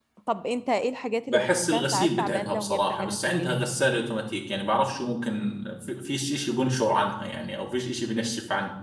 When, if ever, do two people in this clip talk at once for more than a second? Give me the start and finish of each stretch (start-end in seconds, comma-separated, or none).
1.3-3.5